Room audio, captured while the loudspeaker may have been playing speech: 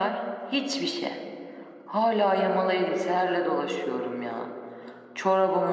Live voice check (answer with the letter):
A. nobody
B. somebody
A